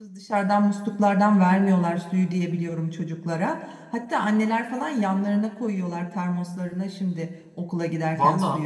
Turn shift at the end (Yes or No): Yes